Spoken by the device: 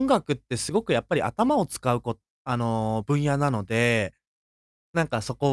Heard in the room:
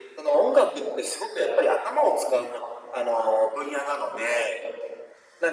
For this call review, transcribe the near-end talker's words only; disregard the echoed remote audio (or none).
none